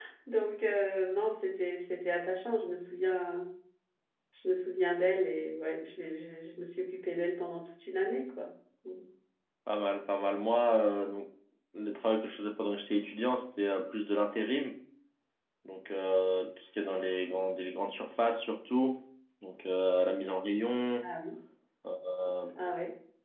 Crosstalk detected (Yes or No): No